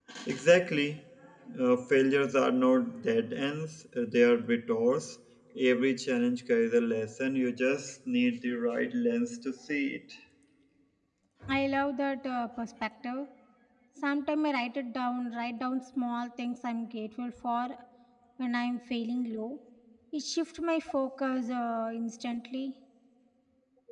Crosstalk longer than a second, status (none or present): none